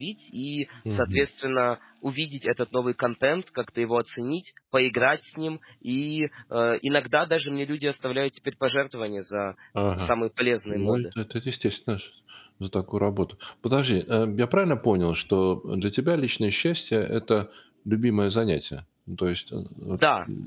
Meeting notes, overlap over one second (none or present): none